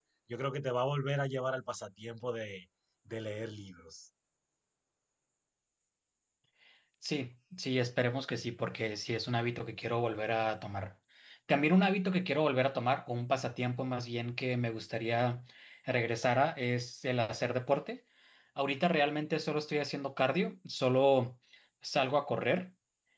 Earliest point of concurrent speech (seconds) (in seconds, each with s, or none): none